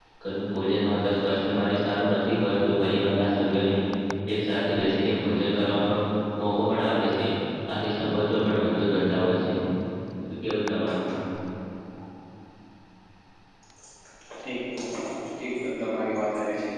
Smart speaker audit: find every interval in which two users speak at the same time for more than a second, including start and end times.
none

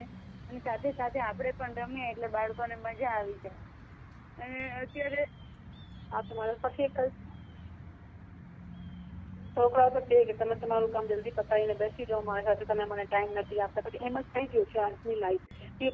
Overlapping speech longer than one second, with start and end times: none

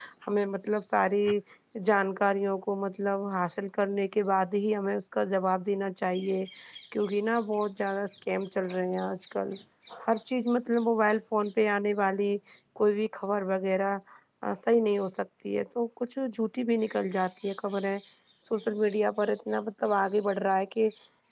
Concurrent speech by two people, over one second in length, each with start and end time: none

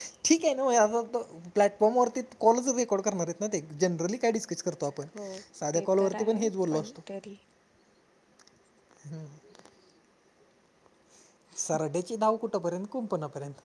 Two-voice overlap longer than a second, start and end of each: 5.7-7.0

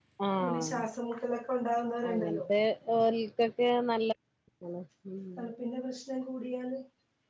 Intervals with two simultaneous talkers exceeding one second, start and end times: none

